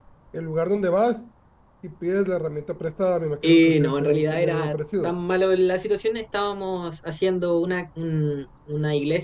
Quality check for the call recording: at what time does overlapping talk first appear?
3.4 s

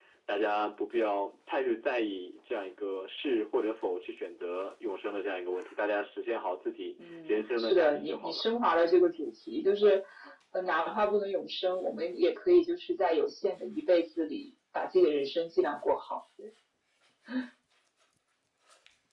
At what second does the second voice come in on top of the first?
7.0 s

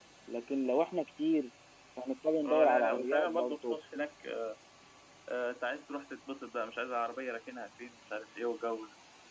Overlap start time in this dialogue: 2.4 s

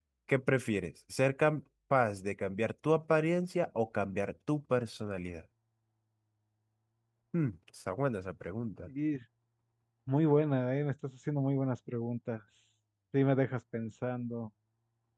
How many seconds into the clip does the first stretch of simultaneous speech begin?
none

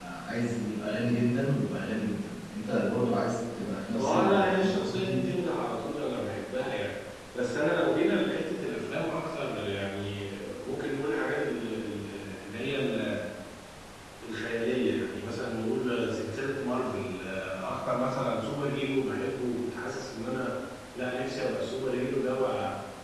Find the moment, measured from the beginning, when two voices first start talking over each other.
4.0 s

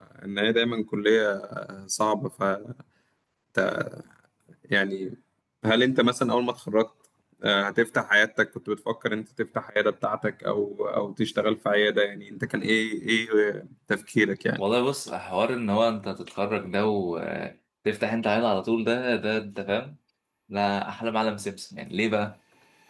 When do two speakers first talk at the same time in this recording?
none

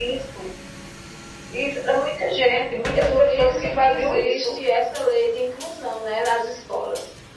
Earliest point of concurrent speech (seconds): 3.1 s

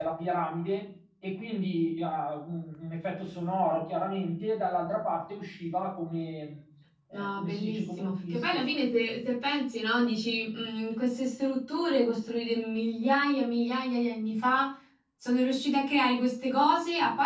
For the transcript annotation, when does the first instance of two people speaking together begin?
7.1 s

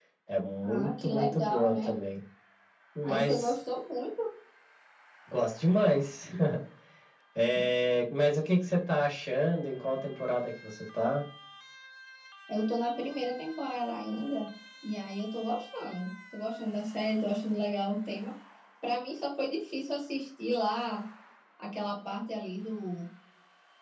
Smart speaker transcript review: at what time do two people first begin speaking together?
0.6 s

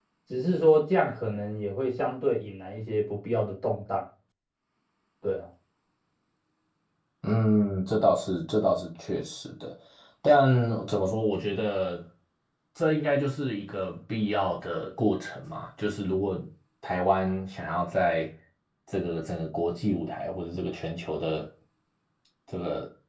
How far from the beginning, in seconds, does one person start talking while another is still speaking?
none

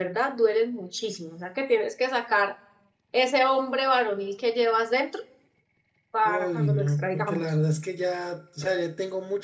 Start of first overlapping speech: 6.2 s

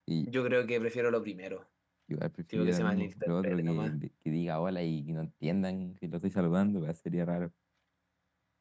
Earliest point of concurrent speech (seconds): 2.5 s

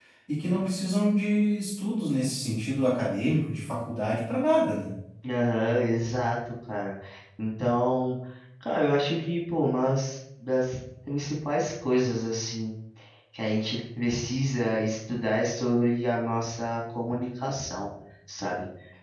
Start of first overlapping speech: none

